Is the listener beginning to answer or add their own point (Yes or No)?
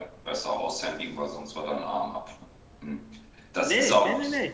Yes